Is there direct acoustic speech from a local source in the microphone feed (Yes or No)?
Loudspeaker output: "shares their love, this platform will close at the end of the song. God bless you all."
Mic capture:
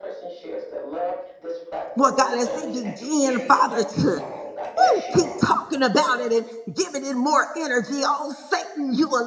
Yes